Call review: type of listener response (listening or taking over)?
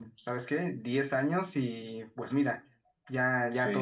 listening